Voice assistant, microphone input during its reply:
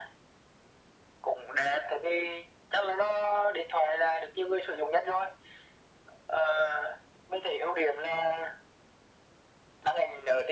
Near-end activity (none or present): none